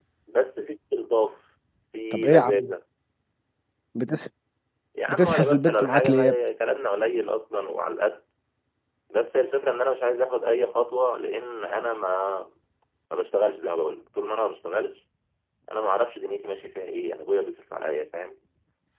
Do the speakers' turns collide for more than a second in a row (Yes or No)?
Yes